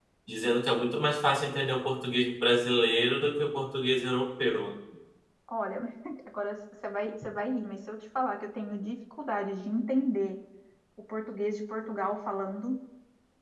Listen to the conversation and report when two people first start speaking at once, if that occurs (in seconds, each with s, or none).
none